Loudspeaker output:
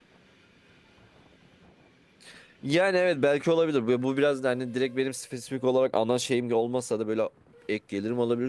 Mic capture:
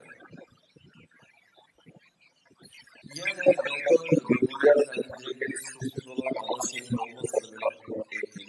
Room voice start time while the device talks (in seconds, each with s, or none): none